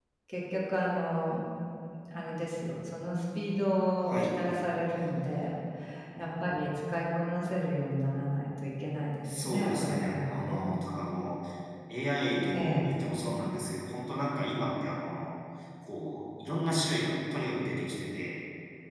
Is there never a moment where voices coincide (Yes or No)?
No